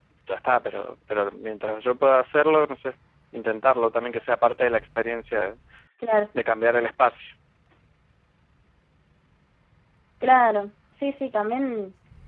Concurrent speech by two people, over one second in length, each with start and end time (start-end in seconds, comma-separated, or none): none